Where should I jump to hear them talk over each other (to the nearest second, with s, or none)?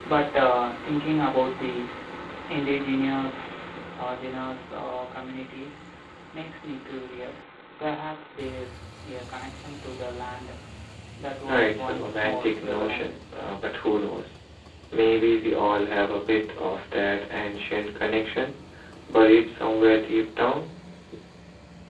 11 s